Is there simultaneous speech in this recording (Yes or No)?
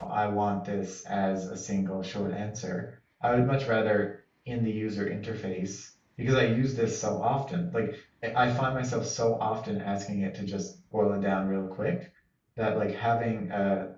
No